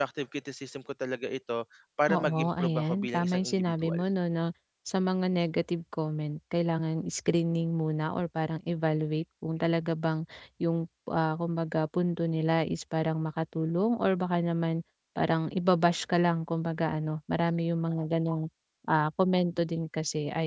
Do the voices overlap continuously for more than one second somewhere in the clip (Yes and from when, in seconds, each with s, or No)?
Yes, from 2.1 s